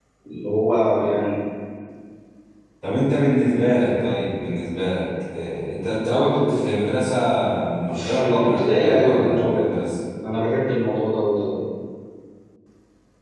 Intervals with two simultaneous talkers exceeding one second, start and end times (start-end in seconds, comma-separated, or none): 7.9-9.7